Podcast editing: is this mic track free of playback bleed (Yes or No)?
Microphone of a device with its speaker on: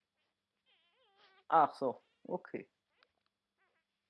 Yes